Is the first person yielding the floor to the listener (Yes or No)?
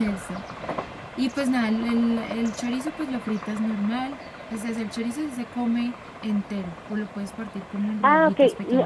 Yes